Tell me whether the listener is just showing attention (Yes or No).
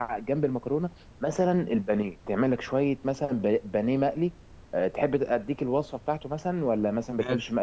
Yes